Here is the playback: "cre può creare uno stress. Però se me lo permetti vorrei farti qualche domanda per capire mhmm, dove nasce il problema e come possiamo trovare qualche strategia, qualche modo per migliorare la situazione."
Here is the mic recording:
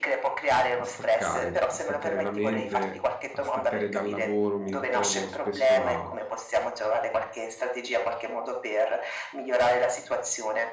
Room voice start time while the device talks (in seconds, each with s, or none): 0.7 s